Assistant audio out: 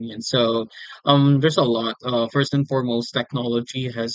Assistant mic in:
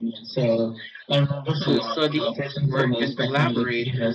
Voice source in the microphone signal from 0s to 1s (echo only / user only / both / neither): echo only